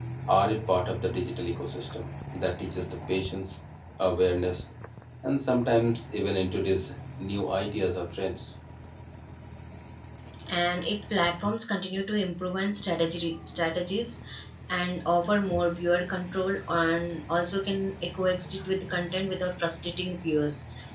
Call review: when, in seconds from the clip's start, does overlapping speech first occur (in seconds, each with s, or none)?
none